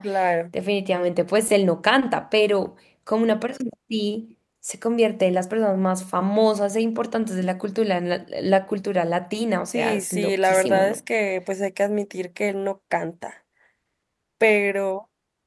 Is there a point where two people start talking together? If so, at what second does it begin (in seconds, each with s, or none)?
9.7 s